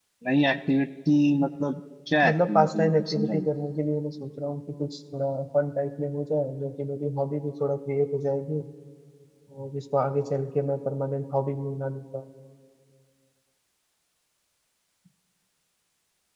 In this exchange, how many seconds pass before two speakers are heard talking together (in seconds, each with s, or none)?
2.2 s